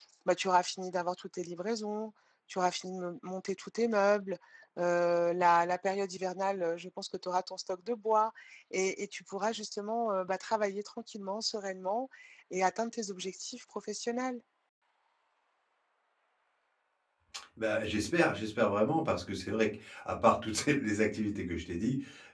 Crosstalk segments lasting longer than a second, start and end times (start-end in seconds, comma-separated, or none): none